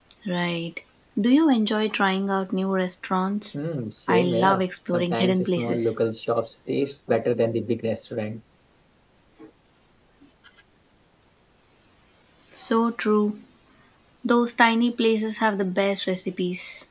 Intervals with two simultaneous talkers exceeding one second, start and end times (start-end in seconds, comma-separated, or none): 4.1-6.0